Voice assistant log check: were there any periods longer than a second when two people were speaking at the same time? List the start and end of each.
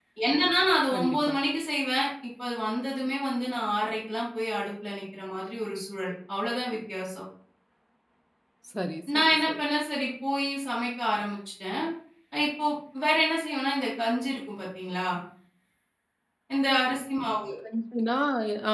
none

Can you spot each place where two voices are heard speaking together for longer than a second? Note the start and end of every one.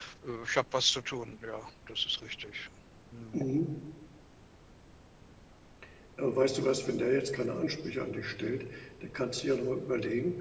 none

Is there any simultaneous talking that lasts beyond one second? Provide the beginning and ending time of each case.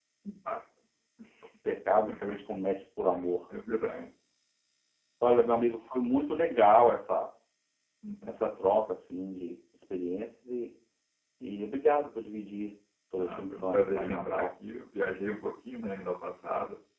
13.2-14.4

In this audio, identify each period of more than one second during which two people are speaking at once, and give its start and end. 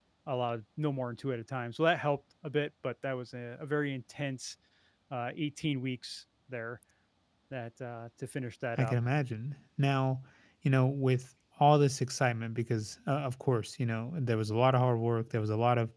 none

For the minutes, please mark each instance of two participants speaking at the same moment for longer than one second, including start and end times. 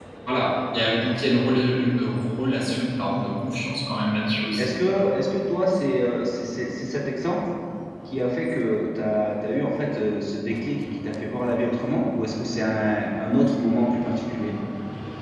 none

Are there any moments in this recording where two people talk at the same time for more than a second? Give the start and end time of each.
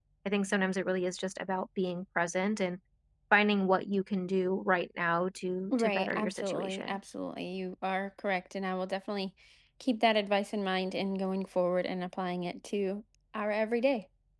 5.7-7.0

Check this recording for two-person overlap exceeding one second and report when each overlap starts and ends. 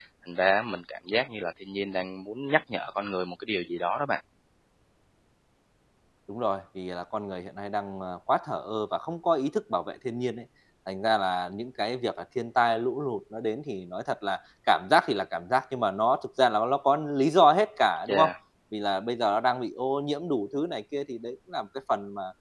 none

